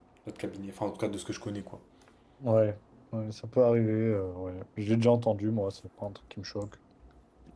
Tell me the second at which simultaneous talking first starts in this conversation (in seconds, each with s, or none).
none